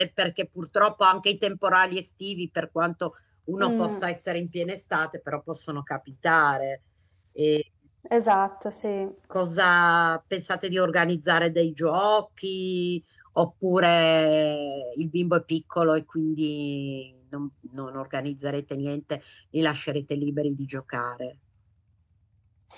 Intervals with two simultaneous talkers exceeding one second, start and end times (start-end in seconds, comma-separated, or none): none